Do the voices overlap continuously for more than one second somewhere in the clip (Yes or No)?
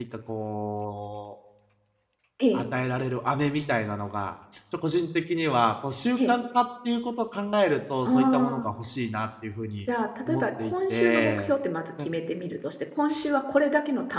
Yes